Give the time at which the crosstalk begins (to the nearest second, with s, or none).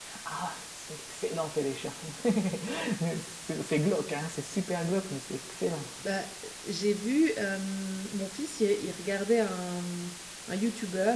none